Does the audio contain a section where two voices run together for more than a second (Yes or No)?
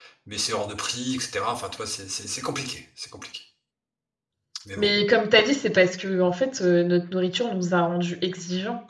No